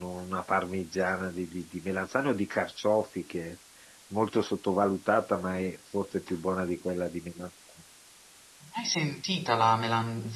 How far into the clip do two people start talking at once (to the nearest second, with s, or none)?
none